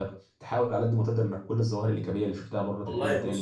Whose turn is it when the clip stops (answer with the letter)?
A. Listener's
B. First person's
A